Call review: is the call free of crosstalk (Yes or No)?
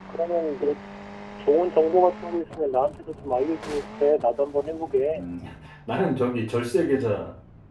Yes